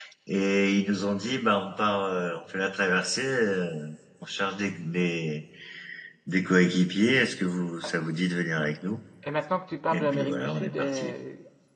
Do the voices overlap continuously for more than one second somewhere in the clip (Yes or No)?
Yes